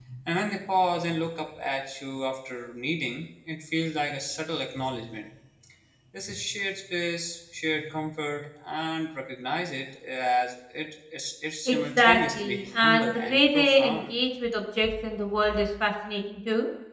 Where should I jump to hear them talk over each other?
11.7 s

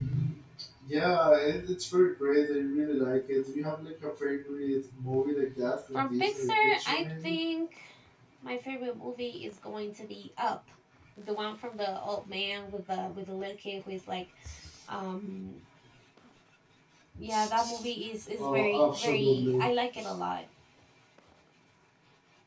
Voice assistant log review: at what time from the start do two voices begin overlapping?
5.9 s

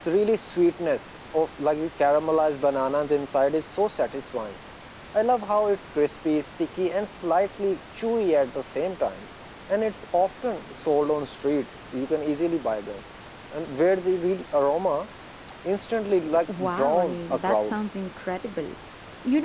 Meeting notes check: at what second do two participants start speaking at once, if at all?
16.3 s

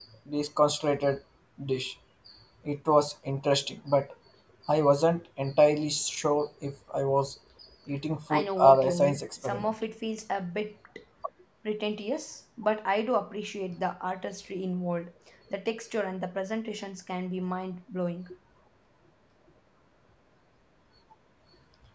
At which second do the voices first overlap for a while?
8.3 s

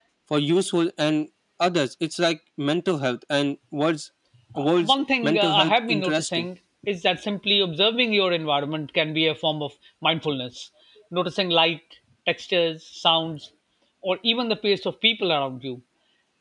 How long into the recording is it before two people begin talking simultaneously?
4.5 s

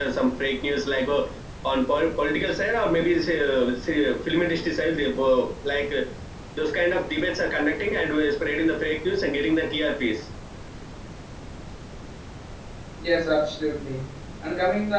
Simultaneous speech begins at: none

